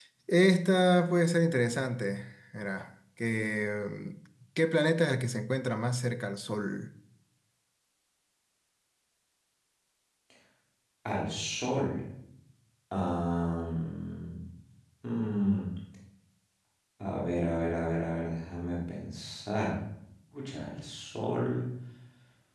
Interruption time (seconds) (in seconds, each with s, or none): none